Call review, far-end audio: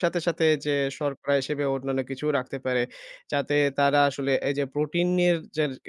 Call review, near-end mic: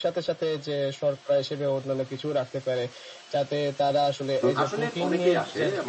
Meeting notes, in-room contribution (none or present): present